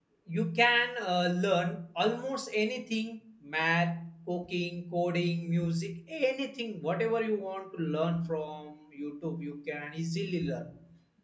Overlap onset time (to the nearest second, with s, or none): none